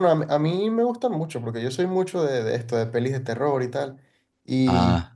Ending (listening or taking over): listening